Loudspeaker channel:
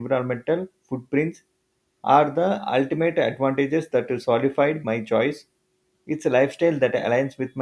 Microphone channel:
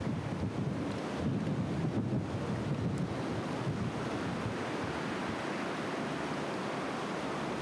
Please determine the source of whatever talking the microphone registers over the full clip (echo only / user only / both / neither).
neither